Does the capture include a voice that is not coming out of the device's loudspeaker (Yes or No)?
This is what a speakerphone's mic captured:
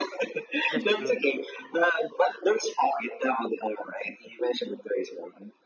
Yes